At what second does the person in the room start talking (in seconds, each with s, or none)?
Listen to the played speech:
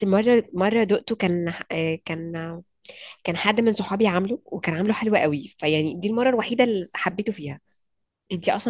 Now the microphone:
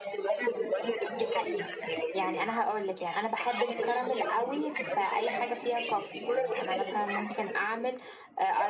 1.2 s